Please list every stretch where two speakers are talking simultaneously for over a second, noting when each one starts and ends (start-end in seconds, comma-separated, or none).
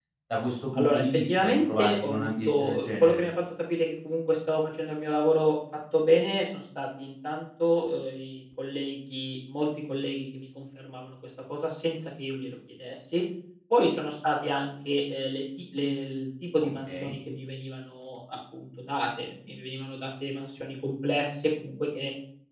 0.7-3.2